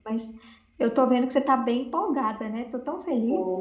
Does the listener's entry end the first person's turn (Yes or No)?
Yes